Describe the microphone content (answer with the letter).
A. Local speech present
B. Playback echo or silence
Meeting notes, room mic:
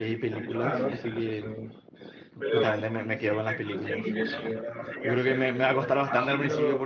A